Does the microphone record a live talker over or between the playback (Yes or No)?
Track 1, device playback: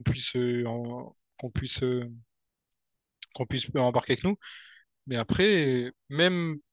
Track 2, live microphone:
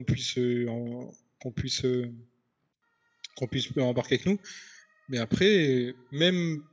No